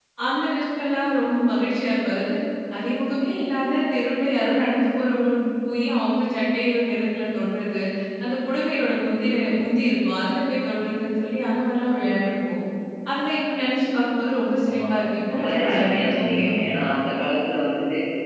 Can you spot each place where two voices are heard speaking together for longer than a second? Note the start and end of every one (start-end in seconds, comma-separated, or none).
15.3-16.8